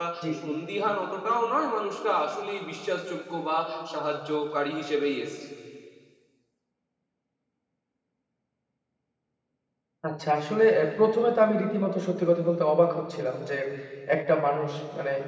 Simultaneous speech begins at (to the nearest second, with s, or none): none